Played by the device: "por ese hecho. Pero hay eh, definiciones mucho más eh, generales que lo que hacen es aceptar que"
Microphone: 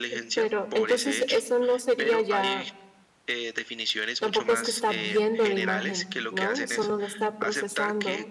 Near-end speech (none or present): present